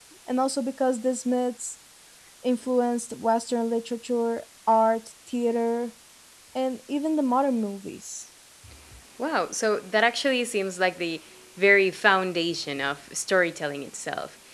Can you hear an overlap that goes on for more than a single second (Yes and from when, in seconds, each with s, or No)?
No